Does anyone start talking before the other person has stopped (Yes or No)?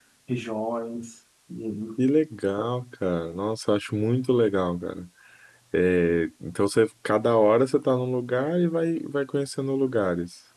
No